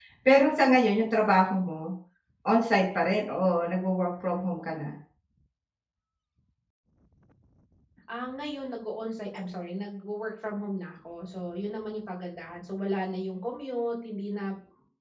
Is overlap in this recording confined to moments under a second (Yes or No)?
Yes